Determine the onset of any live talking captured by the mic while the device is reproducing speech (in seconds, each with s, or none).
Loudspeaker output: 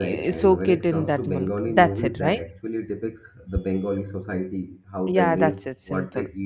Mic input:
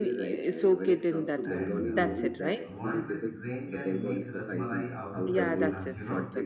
1.4 s